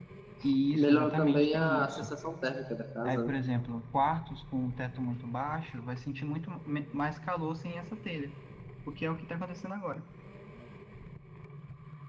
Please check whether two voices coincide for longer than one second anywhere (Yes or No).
Yes